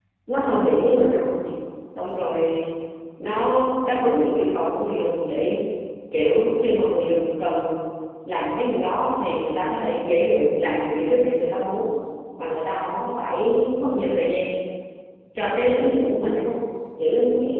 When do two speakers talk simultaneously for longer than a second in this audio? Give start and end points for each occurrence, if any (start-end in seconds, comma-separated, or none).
none